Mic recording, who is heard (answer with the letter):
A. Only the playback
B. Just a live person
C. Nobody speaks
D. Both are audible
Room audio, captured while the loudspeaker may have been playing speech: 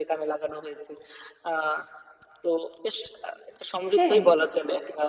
D